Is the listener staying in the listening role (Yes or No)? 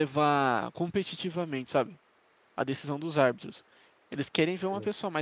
Yes